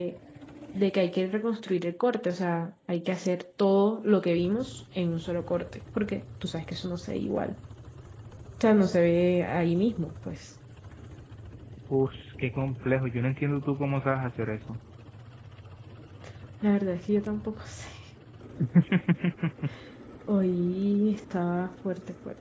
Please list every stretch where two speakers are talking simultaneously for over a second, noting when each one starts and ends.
none

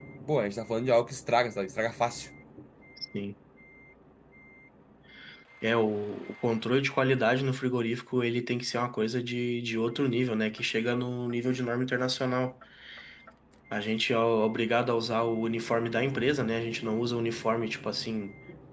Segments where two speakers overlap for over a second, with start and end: none

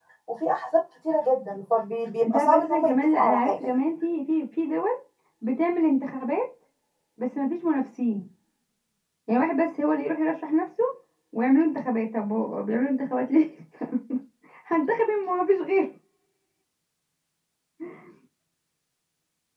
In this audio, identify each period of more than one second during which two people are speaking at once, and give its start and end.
2.3-3.5

